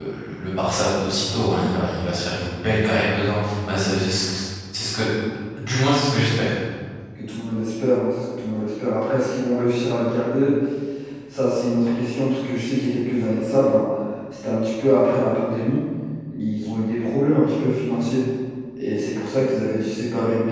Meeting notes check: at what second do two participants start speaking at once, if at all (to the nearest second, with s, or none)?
none